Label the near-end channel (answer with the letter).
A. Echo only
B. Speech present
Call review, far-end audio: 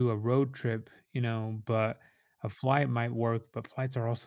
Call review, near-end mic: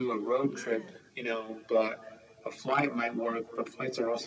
B